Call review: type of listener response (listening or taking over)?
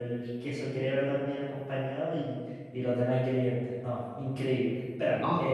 listening